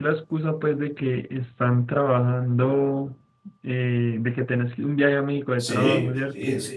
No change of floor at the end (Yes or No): No